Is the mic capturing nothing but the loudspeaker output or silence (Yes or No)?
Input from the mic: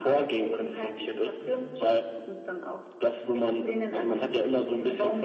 Yes